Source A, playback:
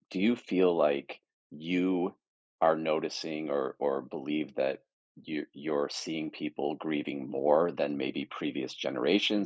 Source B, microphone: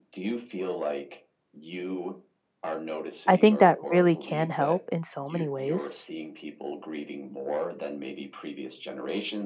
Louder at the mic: user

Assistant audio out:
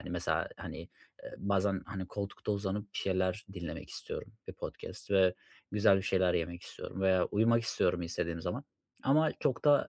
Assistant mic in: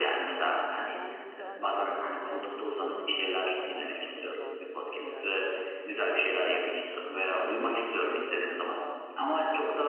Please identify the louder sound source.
echo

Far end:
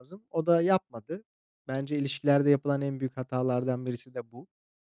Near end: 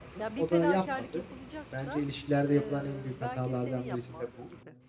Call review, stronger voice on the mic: echo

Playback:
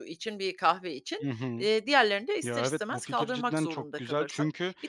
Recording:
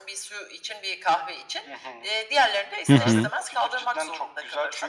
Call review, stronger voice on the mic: user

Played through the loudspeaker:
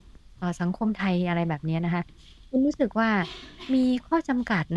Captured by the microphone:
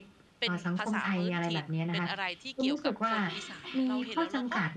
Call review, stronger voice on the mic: echo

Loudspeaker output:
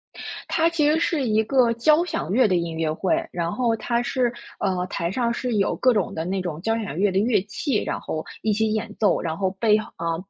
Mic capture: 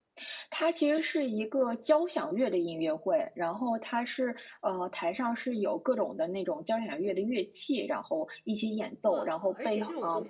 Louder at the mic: echo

